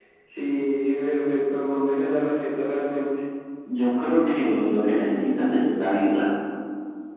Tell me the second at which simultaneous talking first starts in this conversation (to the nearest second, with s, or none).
none